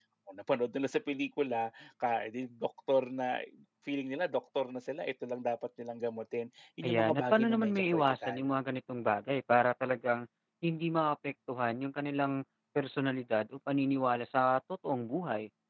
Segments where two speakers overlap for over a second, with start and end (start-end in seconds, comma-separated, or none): 6.8-8.4